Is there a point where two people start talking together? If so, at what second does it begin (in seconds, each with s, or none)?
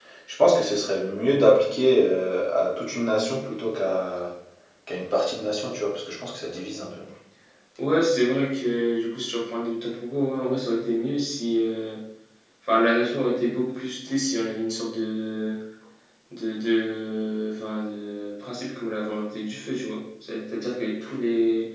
none